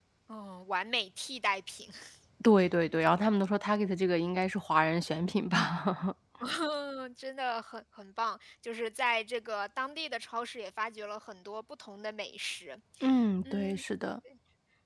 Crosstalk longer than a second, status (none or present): none